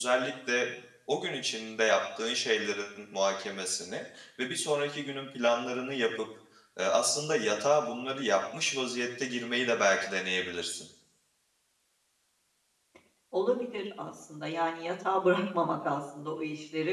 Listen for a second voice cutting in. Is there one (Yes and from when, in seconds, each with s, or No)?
No